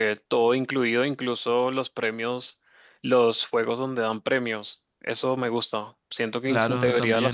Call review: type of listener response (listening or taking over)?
listening